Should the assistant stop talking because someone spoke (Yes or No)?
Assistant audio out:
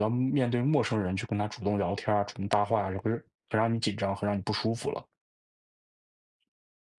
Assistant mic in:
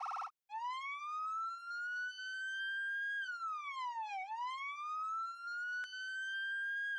No